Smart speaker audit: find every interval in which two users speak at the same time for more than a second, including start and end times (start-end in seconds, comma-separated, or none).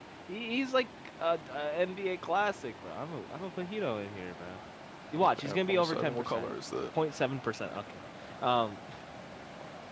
5.2-6.5